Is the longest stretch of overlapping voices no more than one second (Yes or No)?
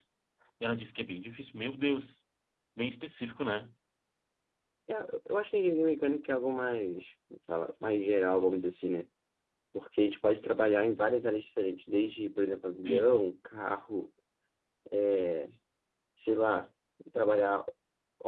Yes